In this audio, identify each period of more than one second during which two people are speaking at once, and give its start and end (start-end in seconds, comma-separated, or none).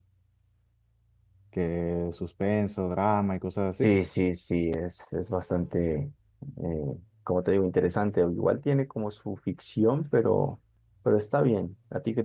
none